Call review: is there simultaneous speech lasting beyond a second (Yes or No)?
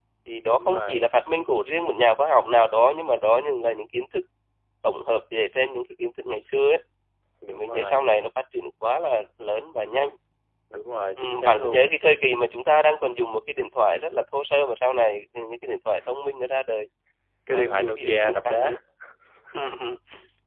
Yes